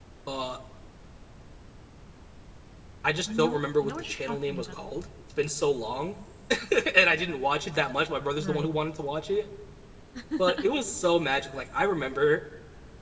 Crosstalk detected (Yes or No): Yes